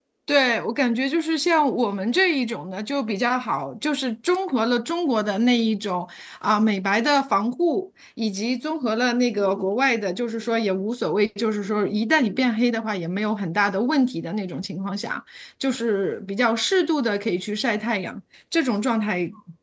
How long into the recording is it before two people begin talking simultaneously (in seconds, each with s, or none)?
none